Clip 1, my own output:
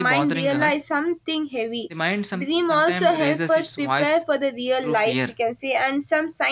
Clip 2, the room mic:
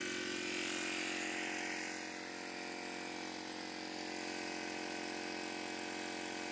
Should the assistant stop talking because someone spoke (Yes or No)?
No